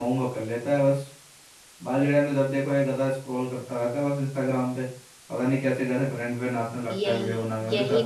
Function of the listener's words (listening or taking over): taking over